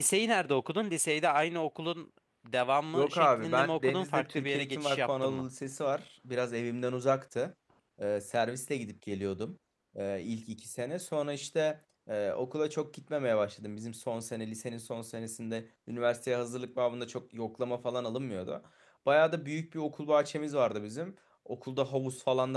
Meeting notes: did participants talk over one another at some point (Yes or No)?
Yes